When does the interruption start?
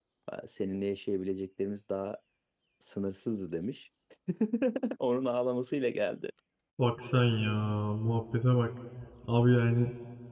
none

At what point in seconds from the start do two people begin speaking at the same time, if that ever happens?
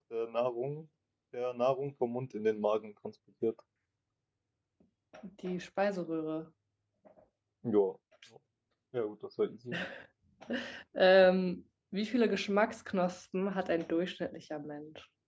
none

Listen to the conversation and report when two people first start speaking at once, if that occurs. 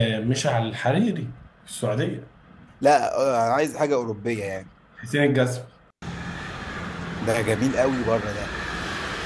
none

